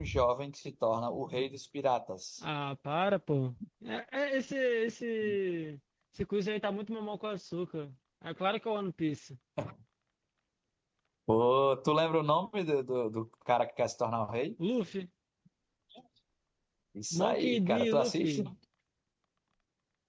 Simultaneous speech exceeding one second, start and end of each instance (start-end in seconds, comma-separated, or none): 17.1-18.4